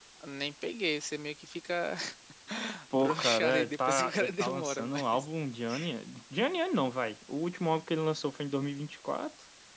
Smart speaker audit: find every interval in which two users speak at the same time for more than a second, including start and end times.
2.9-5.3

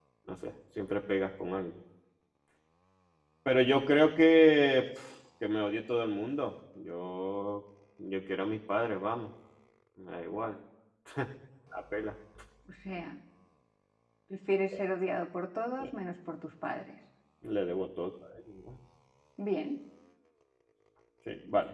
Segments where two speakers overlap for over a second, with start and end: none

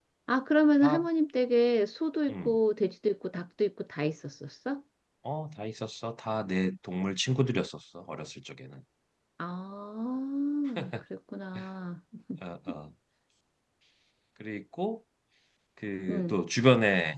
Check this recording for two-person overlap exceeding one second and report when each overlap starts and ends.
none

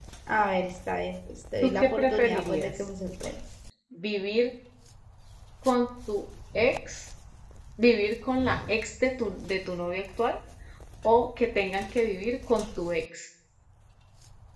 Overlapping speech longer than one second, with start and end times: 1.6-2.8

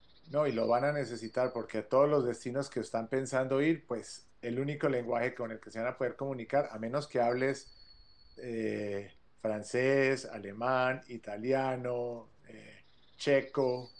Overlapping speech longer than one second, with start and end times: none

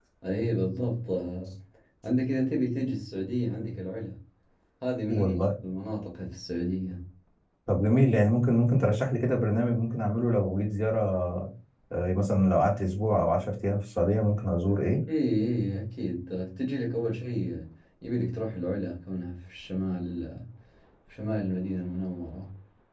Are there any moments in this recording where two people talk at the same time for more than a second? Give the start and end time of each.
none

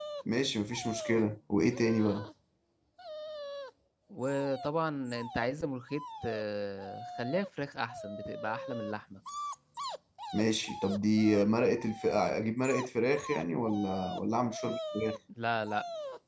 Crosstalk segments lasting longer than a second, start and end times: none

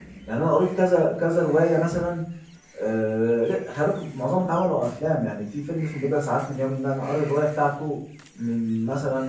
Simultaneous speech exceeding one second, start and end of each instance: none

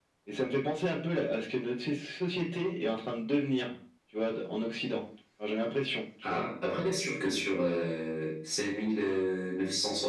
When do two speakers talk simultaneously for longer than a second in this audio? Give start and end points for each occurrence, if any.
none

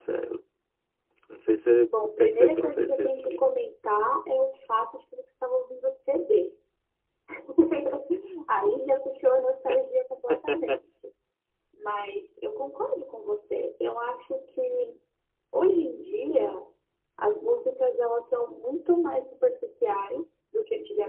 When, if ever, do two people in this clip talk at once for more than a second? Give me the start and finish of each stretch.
2.1-3.4

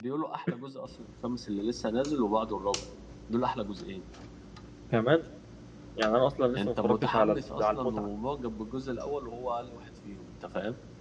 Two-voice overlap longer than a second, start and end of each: 6.6-8.1

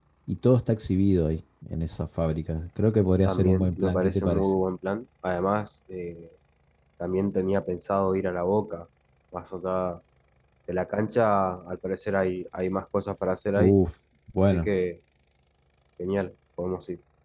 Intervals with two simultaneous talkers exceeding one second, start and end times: 3.2-4.5

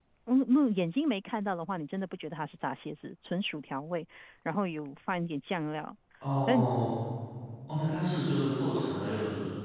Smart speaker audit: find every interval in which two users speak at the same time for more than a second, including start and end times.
none

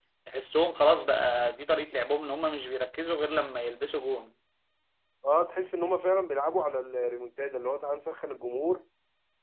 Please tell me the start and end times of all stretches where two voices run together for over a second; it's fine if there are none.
none

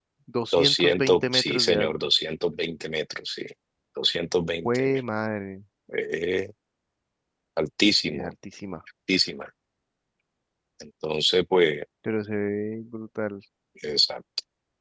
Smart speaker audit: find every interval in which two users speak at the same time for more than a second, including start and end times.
0.5-1.9

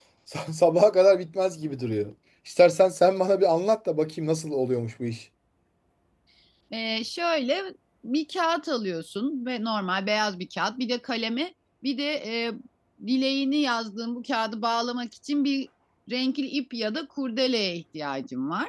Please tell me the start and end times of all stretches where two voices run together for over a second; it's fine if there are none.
none

